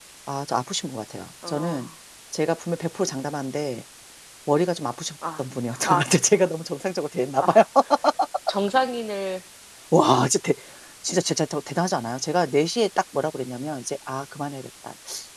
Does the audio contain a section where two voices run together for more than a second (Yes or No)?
No